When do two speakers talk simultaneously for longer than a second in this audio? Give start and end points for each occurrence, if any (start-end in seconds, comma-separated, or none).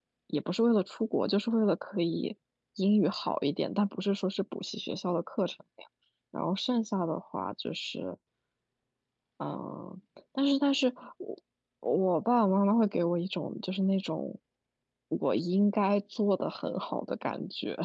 none